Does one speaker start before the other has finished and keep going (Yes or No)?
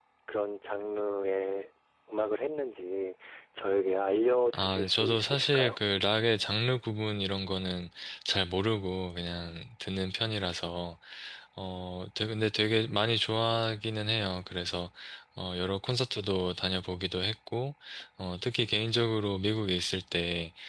Yes